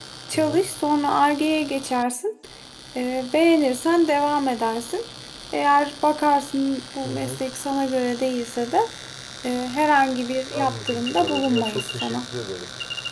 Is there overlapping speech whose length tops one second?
Yes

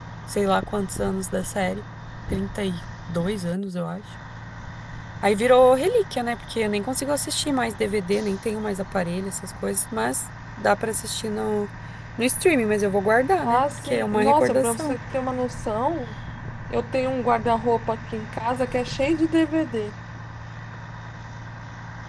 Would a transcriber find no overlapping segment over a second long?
No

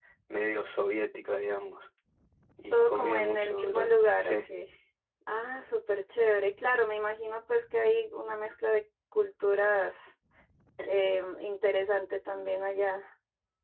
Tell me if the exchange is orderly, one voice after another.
No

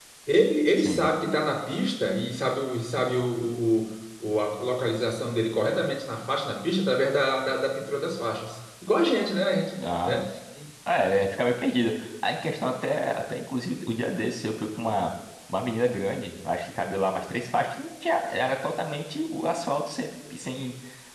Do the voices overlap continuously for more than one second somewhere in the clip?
No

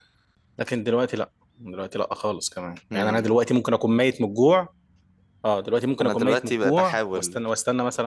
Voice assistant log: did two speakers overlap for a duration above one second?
Yes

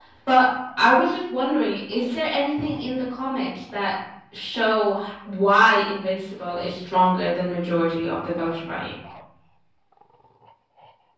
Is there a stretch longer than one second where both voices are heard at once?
No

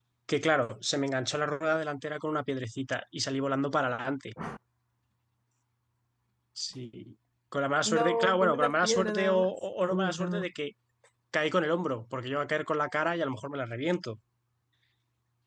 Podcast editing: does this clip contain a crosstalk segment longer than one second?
Yes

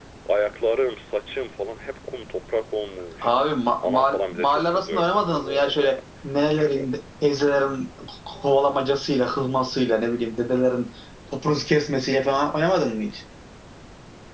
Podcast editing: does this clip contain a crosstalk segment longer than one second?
Yes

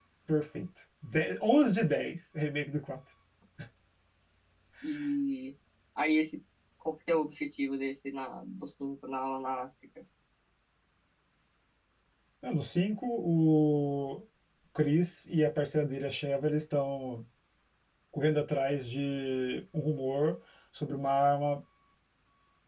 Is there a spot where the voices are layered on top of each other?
No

